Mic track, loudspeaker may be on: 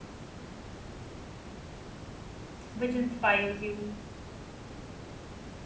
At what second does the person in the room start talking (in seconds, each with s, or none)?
2.7 s